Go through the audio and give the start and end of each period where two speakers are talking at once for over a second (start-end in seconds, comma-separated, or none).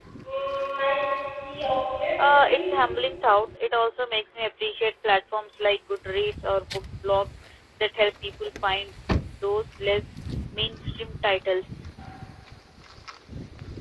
none